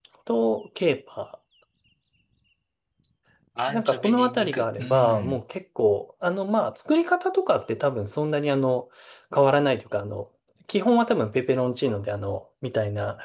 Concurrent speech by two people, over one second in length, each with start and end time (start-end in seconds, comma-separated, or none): 3.7-5.4